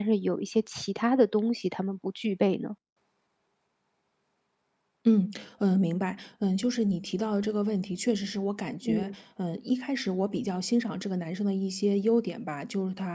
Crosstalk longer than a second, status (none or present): none